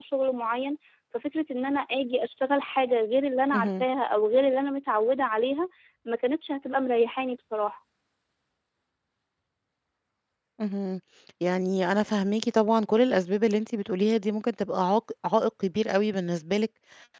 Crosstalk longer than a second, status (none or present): none